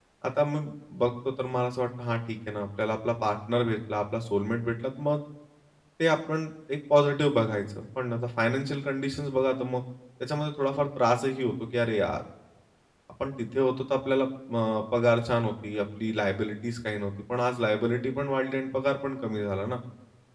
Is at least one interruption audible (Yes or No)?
No